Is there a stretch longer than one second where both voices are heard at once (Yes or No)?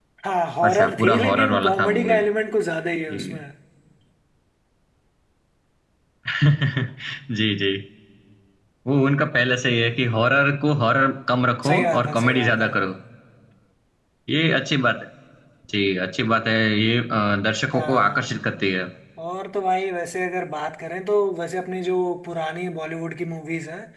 Yes